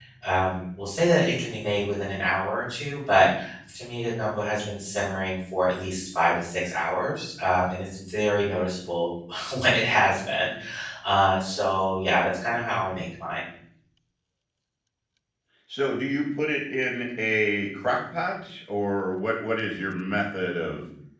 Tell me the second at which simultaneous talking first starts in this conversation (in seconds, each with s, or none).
none